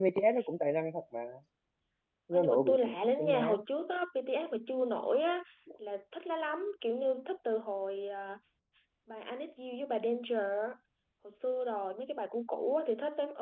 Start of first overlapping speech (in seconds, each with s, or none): 2.3 s